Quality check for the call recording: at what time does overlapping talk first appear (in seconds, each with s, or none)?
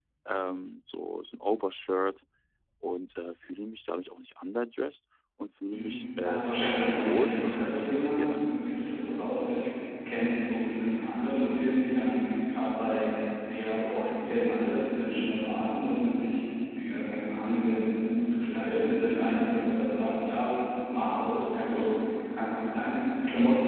5.7 s